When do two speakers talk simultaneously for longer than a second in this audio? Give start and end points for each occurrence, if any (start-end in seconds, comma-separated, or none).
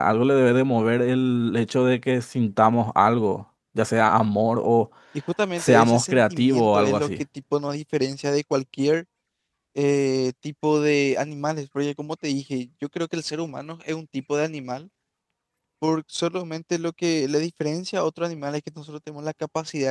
5.6-7.1